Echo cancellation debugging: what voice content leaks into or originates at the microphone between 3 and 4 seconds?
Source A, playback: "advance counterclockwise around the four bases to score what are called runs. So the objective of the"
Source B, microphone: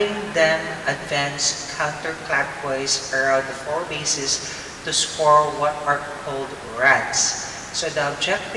echo only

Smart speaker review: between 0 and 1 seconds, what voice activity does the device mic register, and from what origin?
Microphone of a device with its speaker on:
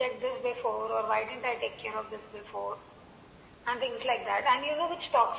echo only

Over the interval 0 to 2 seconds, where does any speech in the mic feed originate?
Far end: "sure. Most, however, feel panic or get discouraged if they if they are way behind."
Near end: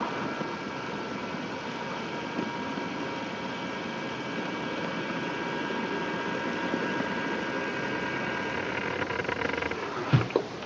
neither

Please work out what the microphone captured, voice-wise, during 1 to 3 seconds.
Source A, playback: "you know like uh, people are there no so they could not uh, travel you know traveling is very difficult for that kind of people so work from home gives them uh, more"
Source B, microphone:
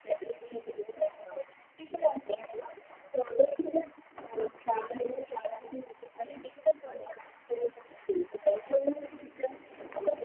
echo only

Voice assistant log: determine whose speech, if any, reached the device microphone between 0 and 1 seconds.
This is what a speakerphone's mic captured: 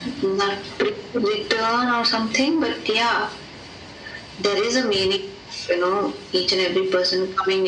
echo only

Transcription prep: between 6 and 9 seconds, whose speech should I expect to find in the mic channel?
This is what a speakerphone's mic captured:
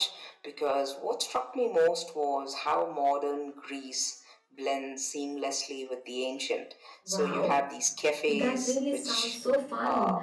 both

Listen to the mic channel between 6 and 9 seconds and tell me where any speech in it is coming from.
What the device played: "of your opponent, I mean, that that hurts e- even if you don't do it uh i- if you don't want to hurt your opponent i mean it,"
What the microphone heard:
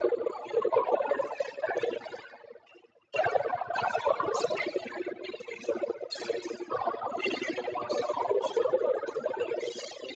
echo only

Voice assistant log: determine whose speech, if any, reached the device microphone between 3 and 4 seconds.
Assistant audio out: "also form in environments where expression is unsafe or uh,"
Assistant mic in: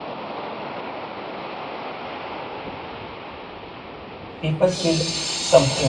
neither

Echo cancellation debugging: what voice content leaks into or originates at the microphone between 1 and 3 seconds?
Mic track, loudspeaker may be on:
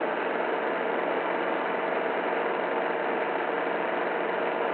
neither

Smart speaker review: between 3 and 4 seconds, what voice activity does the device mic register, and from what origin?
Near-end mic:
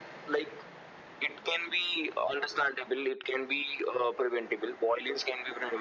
echo only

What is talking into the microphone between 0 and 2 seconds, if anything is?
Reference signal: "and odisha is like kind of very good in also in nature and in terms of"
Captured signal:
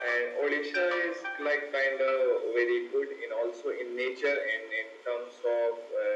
echo only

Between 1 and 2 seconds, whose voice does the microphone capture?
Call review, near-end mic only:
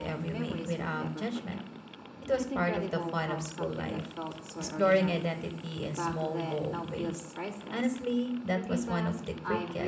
both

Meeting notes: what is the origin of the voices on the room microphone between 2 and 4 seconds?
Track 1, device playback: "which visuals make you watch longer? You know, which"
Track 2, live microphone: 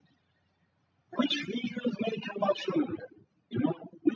echo only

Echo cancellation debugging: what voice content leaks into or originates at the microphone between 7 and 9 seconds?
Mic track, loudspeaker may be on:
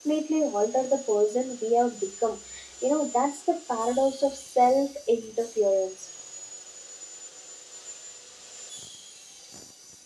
neither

